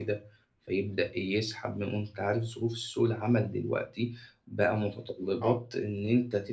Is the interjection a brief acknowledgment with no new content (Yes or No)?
Yes